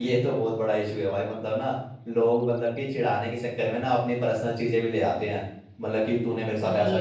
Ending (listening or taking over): listening